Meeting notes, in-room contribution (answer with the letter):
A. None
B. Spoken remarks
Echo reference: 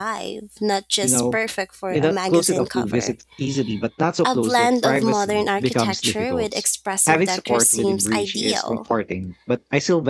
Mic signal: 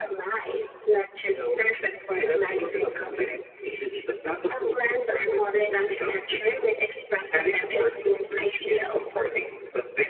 A